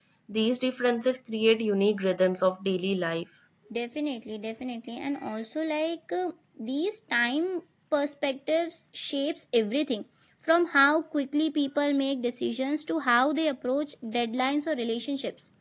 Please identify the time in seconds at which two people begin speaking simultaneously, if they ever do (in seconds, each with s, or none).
none